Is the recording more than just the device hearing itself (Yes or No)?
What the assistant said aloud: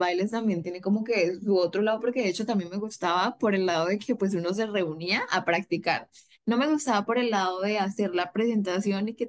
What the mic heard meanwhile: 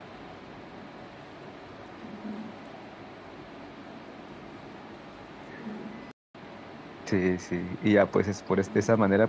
Yes